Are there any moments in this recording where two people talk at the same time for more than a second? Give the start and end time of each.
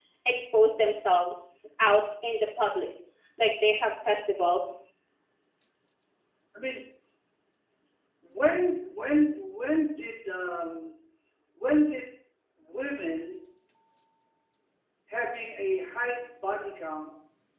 none

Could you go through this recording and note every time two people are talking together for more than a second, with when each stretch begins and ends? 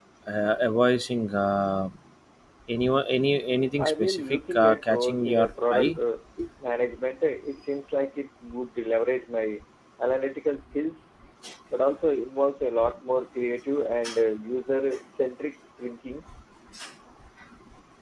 3.8-5.9

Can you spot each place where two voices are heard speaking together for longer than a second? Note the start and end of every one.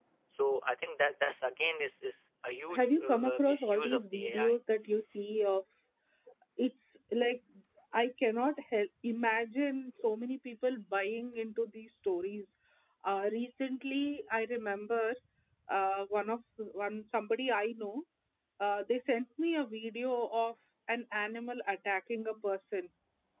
2.7-4.5

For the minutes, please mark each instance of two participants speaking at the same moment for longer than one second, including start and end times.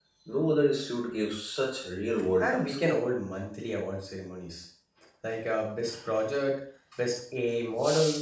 none

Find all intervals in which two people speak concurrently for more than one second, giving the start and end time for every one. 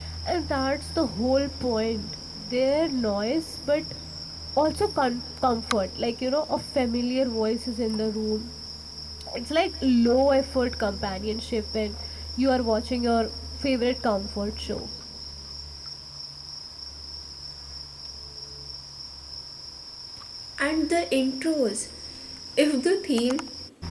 none

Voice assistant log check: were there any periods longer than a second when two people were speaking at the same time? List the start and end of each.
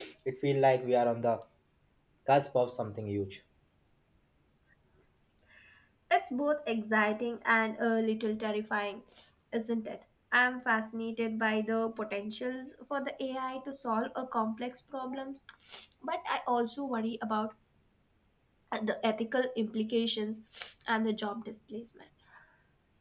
none

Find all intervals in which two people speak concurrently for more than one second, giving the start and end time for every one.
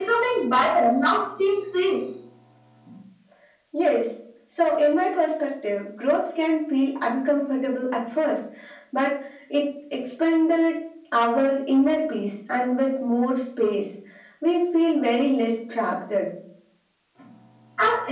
none

